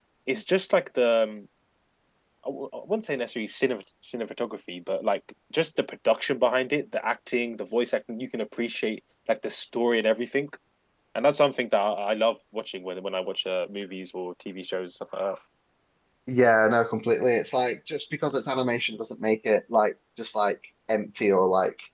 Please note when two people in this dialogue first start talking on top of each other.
none

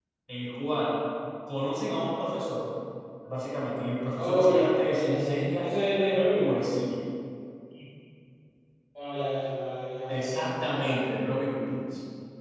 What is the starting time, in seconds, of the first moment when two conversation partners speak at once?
4.2 s

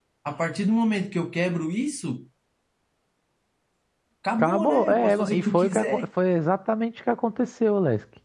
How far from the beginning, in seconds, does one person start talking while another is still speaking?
4.4 s

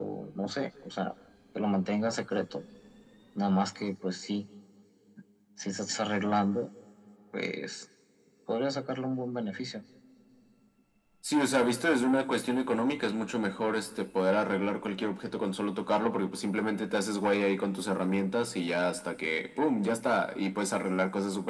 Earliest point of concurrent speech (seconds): none

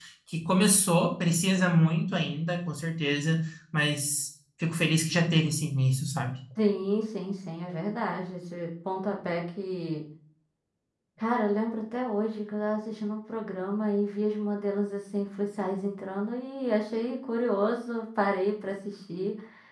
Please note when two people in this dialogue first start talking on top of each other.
none

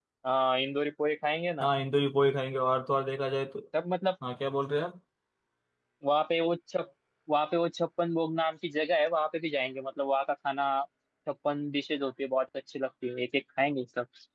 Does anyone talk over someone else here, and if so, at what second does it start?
none

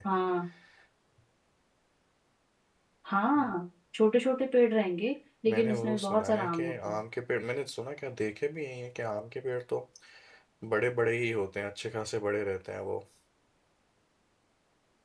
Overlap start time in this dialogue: 5.5 s

